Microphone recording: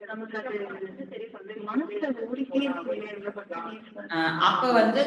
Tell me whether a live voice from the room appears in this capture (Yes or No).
Yes